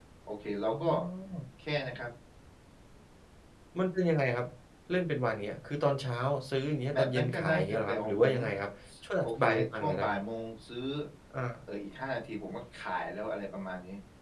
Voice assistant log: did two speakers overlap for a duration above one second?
Yes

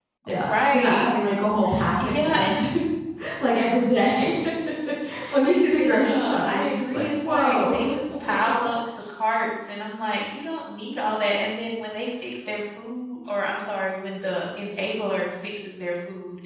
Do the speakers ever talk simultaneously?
Yes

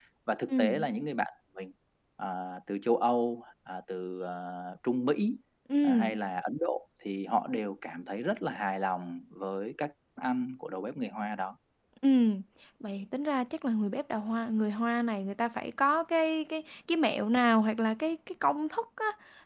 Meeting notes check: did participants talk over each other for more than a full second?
No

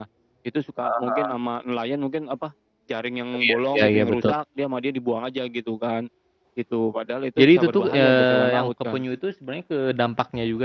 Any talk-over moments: Yes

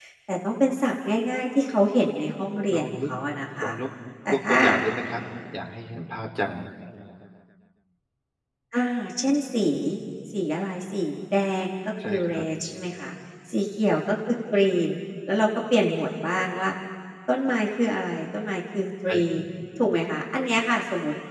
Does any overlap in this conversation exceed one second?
No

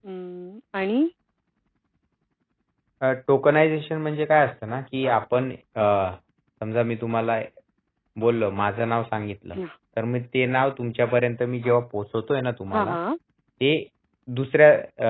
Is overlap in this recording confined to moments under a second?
Yes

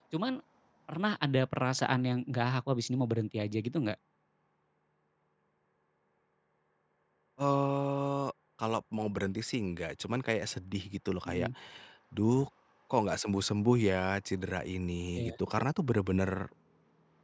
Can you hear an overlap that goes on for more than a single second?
No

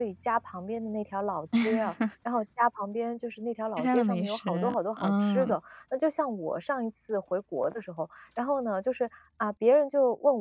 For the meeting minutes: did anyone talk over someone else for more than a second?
Yes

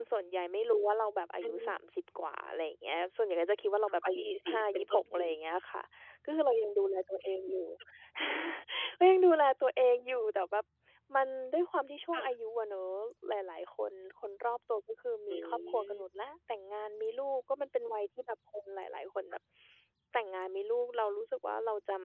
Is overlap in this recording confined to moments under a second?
No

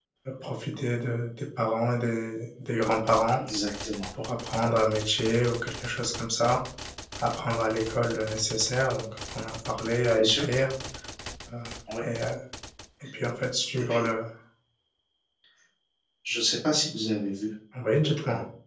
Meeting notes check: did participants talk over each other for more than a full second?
No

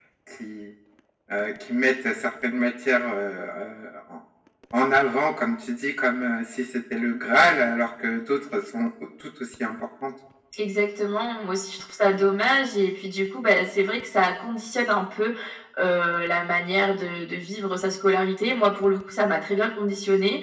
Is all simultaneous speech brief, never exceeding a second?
Yes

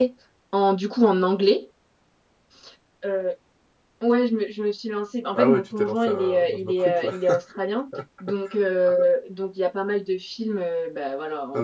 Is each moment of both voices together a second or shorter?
No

